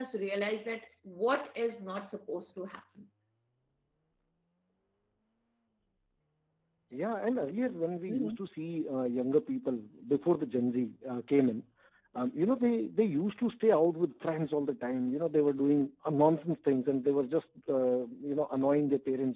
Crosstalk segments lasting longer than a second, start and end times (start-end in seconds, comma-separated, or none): none